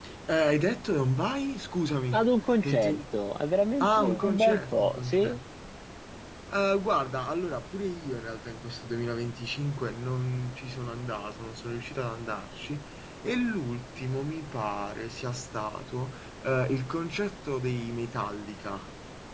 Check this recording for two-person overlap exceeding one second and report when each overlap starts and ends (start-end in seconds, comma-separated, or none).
3.8-5.4